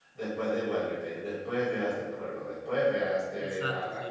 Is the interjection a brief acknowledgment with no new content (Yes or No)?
No